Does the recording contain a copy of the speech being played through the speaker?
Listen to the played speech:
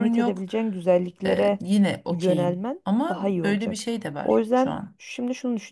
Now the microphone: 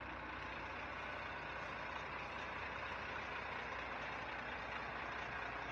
No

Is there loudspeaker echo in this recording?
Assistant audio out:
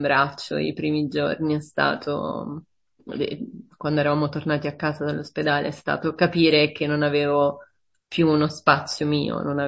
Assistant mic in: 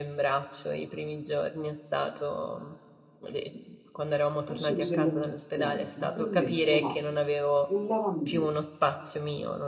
Yes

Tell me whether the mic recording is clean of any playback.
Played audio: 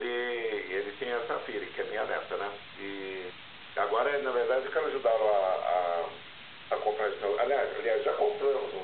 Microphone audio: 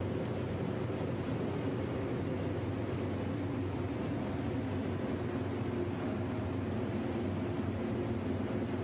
Yes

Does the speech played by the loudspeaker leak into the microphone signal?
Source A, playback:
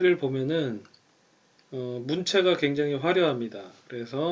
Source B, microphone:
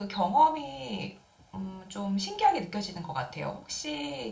No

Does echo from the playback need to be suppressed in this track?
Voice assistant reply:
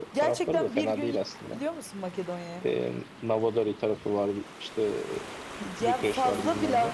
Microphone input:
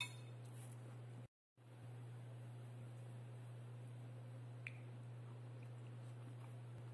No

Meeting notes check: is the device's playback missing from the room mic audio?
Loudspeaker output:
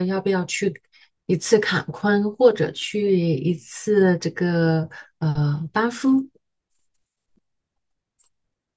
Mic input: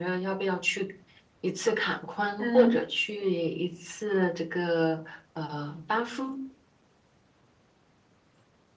No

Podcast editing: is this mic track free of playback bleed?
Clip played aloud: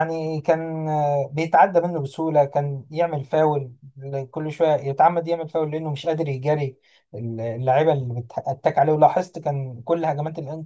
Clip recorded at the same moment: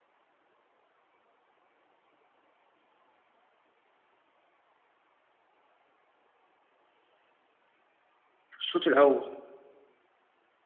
Yes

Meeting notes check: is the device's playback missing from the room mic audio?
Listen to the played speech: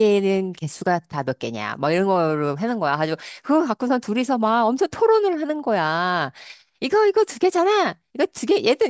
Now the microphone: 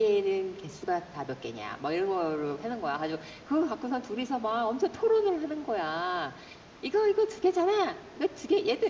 No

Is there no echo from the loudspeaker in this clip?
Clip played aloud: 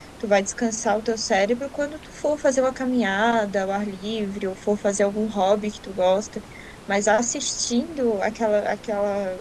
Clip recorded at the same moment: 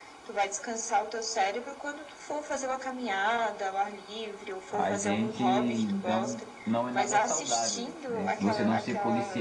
No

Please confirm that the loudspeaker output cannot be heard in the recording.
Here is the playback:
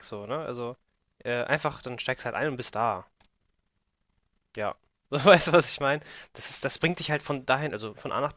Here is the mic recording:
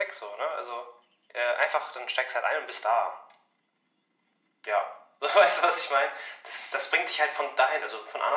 No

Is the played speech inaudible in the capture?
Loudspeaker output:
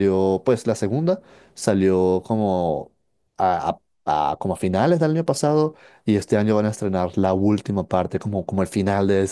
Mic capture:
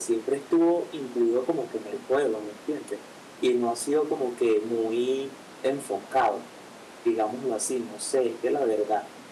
Yes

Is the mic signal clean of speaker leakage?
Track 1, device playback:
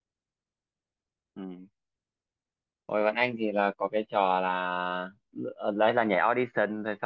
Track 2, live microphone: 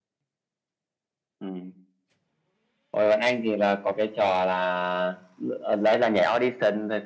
No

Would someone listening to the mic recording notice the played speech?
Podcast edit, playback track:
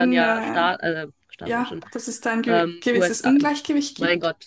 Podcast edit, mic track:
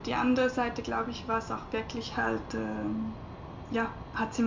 No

